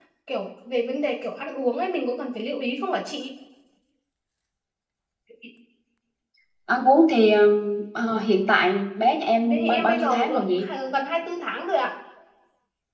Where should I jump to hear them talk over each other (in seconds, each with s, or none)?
9.4 s